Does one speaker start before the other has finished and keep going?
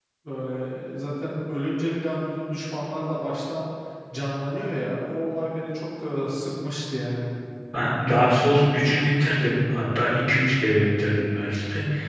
No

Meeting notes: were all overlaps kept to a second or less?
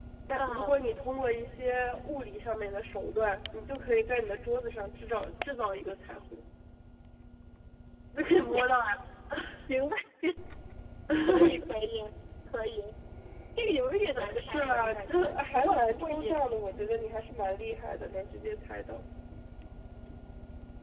No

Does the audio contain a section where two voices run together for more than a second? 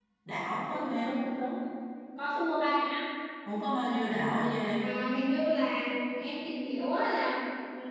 No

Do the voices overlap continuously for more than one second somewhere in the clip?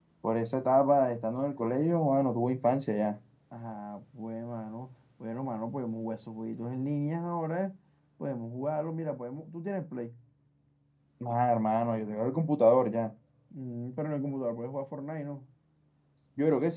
No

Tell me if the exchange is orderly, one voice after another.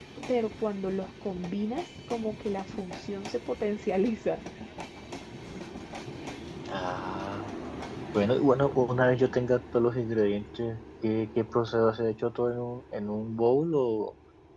Yes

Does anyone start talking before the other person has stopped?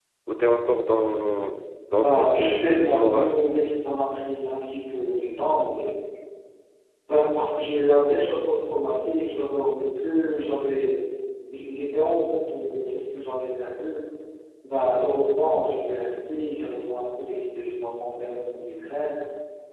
Yes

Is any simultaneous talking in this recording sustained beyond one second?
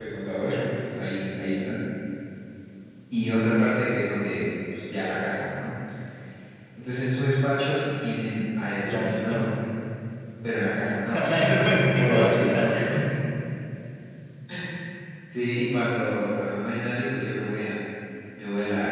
Yes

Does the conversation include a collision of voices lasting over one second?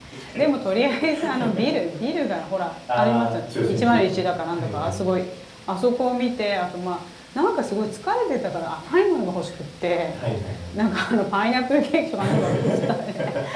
Yes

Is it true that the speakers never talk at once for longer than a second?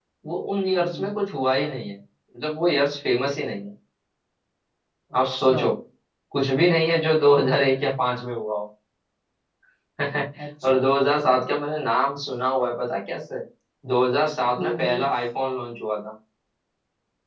Yes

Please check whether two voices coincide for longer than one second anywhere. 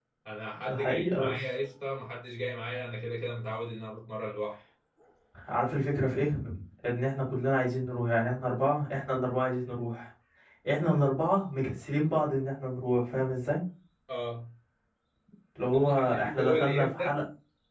Yes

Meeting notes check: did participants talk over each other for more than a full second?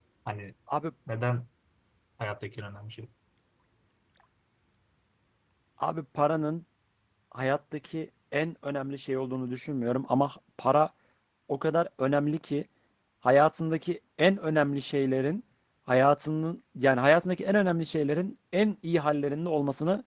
No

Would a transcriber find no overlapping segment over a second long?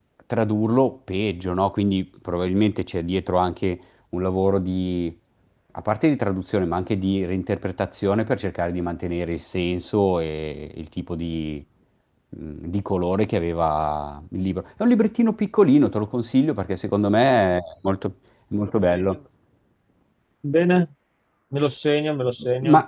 Yes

